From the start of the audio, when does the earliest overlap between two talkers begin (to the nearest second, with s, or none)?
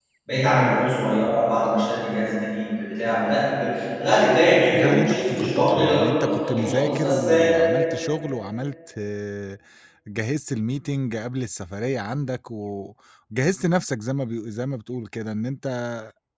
5 s